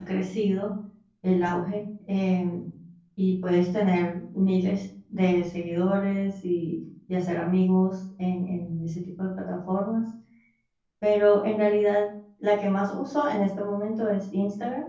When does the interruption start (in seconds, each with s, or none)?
none